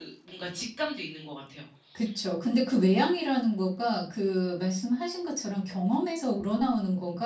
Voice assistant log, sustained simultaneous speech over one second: none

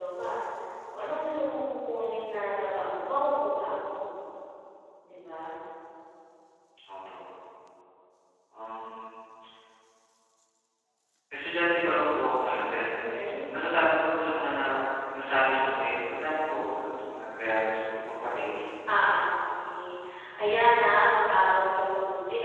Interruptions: none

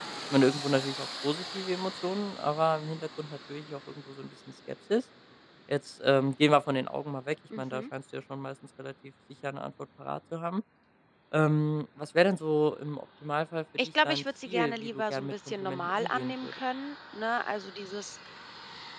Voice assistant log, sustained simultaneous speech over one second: present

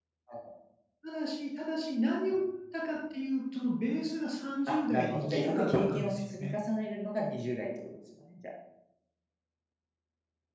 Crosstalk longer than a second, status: present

